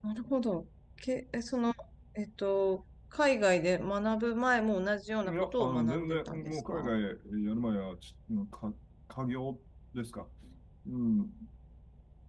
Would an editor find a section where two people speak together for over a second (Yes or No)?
Yes